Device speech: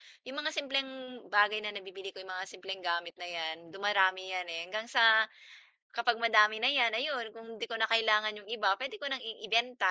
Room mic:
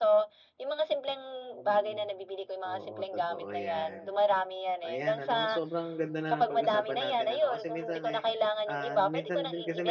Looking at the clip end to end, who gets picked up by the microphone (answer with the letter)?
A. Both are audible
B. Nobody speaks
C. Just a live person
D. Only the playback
A